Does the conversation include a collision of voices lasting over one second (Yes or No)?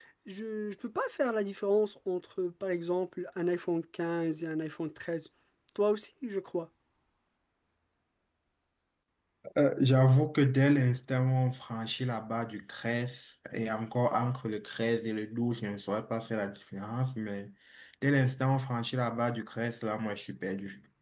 No